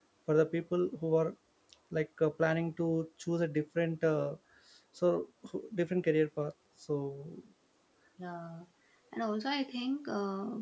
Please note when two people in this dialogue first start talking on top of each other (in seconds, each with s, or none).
none